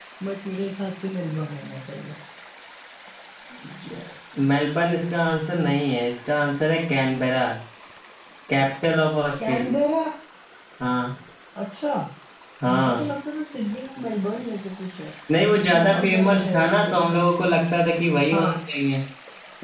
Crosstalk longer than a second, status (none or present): present